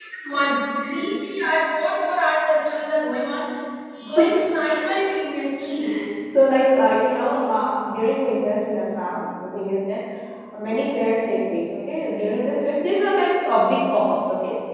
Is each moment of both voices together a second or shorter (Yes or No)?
Yes